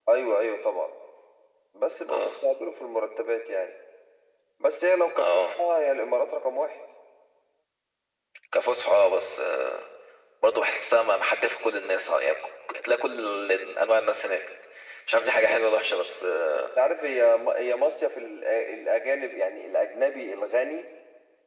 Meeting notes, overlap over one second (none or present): none